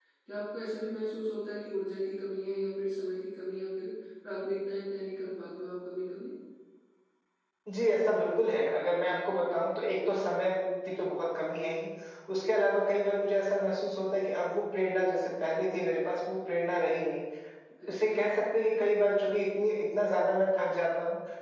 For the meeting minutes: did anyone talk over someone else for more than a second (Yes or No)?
No